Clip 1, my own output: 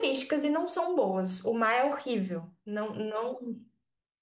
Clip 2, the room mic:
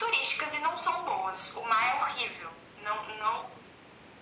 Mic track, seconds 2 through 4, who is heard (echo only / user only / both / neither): echo only